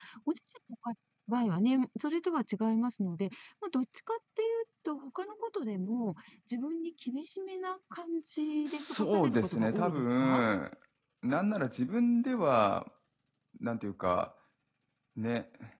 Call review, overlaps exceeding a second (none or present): present